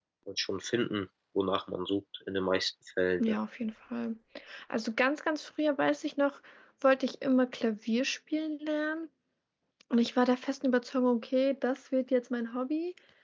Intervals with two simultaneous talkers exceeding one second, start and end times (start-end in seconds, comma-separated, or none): none